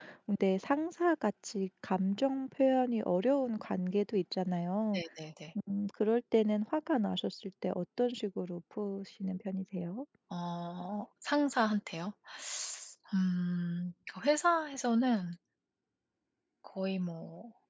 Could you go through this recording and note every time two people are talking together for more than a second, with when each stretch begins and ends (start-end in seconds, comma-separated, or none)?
none